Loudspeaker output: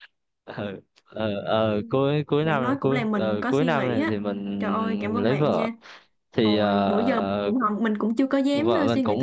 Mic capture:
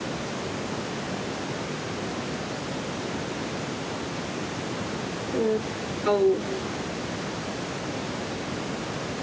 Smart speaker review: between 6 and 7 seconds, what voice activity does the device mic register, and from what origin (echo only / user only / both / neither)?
user only